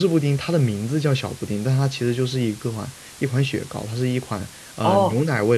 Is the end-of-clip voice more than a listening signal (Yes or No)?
Yes